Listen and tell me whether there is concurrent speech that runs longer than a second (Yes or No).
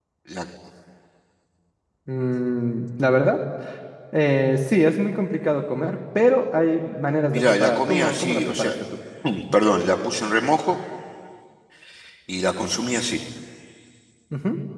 Yes